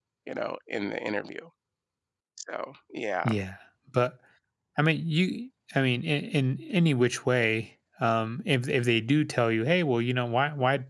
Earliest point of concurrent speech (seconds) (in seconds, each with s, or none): none